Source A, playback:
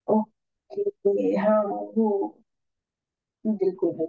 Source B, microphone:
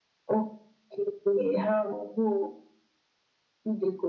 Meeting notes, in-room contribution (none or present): none